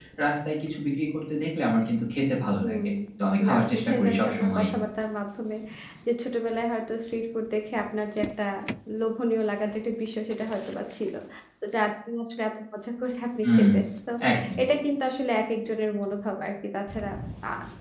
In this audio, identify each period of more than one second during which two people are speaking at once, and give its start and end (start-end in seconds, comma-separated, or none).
3.5-4.7